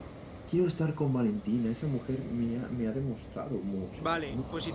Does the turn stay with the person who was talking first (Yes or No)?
No